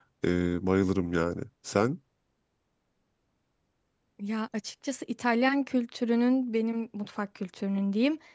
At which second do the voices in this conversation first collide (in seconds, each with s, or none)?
none